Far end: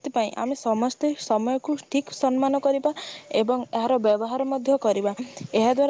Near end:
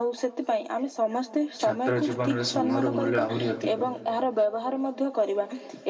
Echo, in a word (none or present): present